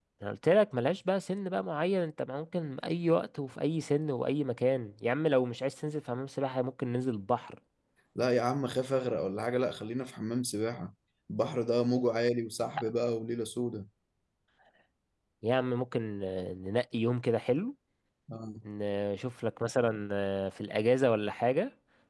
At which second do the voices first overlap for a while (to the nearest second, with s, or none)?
none